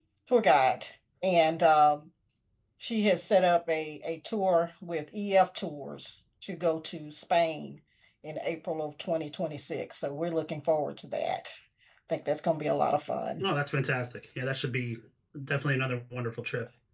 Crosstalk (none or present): none